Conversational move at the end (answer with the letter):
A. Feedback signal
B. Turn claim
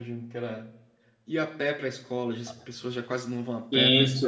B